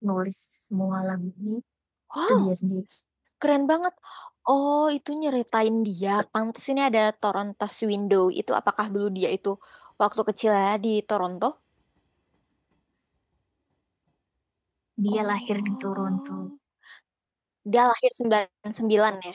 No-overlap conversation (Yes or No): No